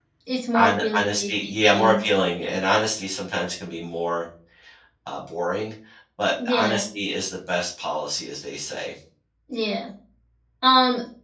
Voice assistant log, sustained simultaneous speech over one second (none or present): present